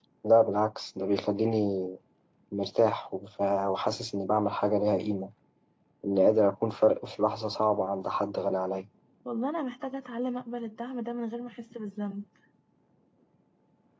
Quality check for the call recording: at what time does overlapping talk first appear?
none

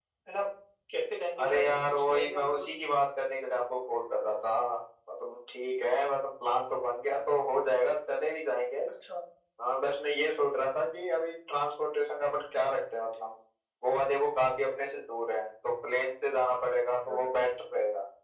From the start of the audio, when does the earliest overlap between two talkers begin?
1.4 s

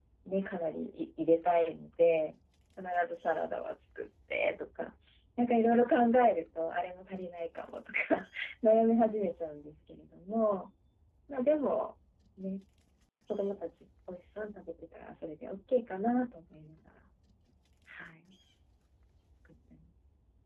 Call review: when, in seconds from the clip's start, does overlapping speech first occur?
none

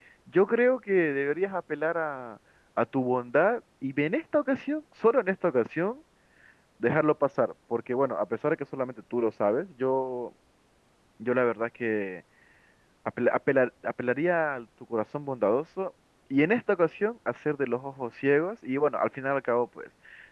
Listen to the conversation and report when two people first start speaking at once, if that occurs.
none

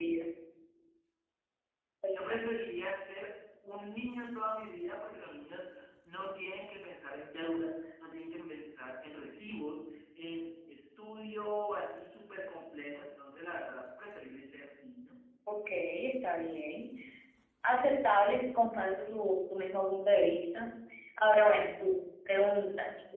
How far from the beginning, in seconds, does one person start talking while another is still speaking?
none

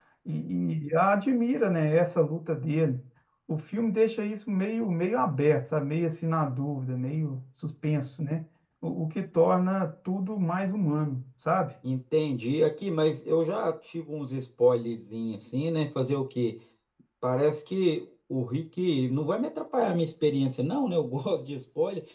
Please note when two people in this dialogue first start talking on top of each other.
none

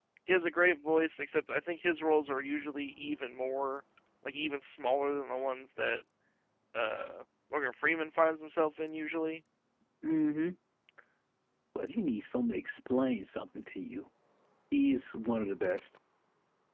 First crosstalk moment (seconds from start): none

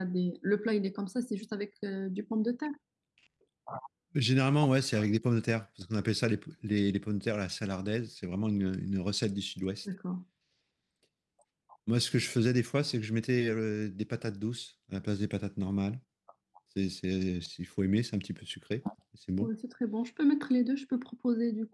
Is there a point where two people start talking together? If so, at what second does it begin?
none

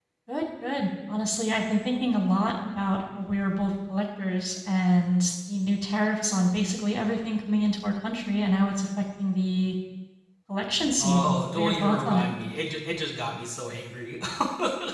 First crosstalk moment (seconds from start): 11.0 s

